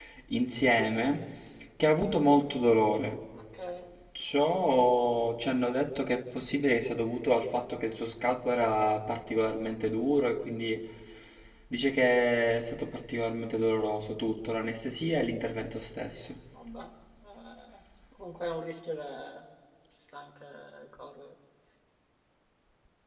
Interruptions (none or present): none